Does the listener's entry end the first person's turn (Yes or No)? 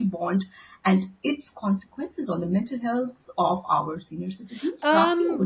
Yes